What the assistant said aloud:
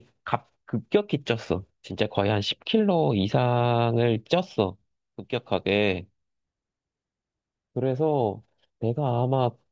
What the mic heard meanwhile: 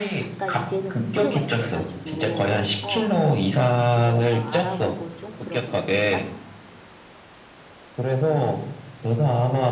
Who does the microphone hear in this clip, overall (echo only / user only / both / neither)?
both